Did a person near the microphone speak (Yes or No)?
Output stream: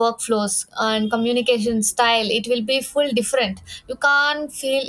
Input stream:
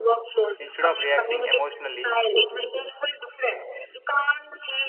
Yes